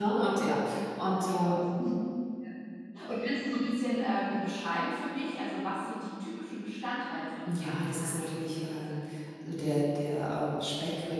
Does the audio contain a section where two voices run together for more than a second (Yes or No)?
Yes